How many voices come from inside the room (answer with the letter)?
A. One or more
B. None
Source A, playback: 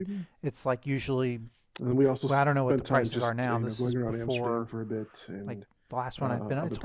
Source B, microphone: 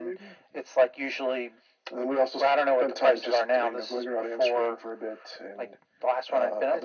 B